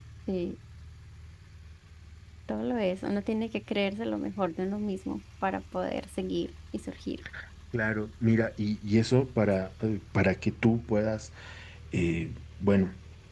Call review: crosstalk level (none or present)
none